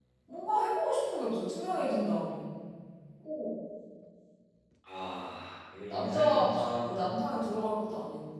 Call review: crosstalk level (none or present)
present